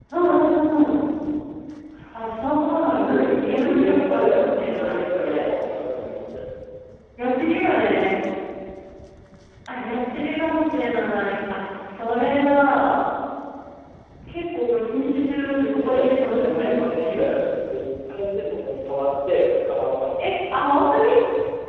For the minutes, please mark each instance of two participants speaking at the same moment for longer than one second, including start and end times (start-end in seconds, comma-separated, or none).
2.8-5.5, 15.4-17.2